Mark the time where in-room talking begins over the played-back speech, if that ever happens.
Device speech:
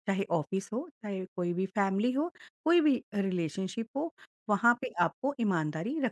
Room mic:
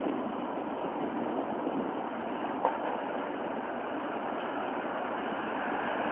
none

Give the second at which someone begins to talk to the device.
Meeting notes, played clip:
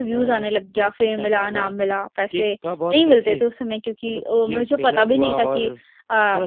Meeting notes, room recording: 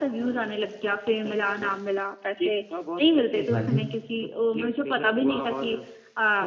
3.5 s

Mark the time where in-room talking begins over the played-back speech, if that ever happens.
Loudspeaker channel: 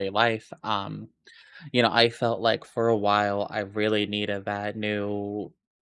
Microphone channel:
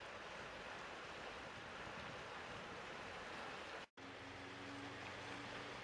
none

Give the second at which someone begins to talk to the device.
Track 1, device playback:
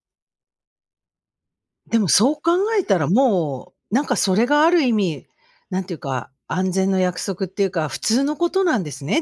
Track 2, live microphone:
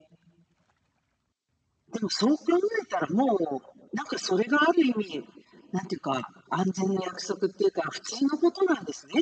none

